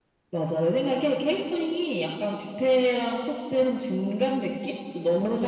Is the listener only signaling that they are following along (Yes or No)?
Yes